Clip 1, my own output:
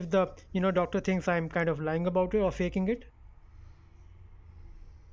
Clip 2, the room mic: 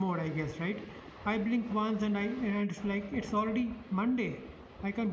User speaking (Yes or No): Yes